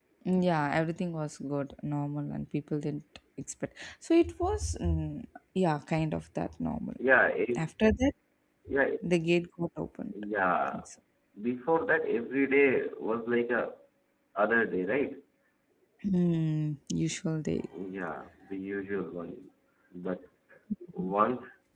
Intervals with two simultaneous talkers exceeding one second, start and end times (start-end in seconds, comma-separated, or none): none